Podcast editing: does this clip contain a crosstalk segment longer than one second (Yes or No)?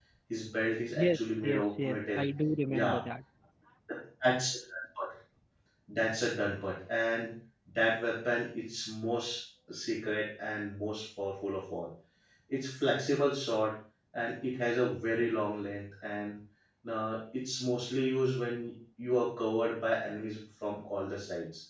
Yes